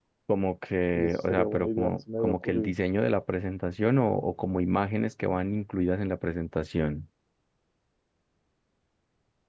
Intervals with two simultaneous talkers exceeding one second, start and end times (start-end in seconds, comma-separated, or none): 0.9-2.8